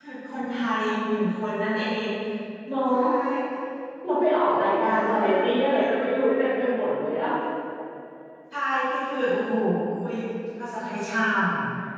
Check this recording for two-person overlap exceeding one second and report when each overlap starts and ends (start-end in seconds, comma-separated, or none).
4.6-6.5